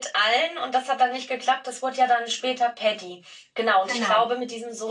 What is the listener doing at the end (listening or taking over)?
listening